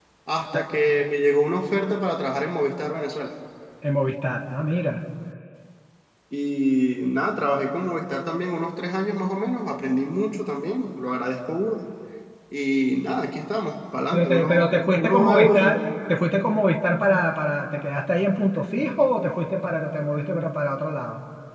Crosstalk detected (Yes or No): Yes